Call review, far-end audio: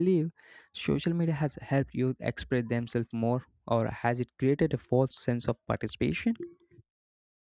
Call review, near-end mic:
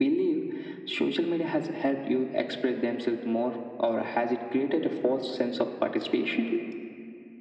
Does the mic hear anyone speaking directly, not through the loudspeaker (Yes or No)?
No